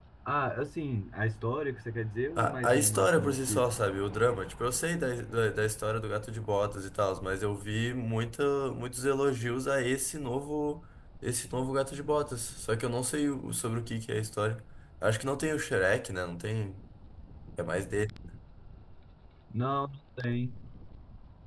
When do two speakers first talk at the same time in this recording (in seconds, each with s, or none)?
2.4 s